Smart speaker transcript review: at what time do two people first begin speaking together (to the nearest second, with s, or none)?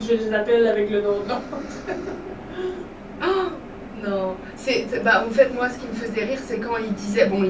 none